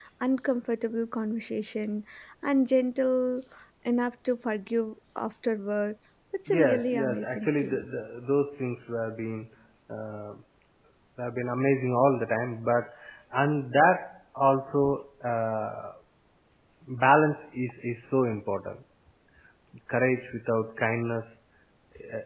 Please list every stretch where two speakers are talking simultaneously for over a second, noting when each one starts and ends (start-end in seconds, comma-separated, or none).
6.5-7.8